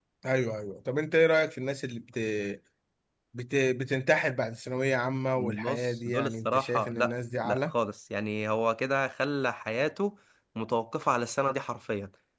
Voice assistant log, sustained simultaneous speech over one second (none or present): present